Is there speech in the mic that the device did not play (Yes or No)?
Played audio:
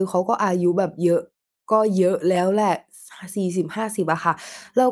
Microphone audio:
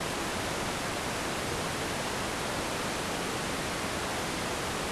No